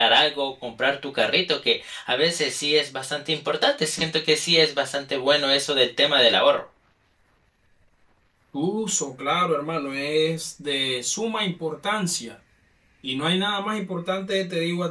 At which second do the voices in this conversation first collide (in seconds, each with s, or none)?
none